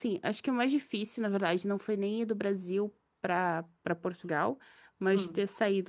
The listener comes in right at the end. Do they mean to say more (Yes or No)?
No